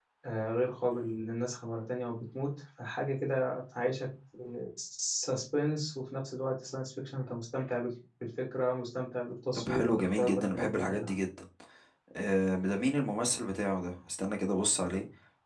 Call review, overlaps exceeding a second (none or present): present